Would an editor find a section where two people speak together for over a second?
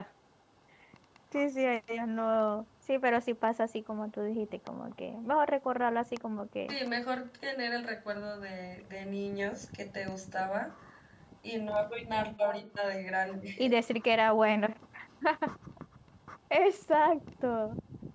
No

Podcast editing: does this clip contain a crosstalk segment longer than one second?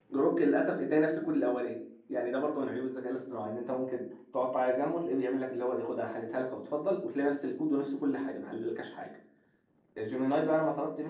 No

